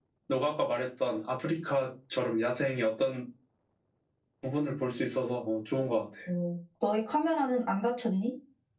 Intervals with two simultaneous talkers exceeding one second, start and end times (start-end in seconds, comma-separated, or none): none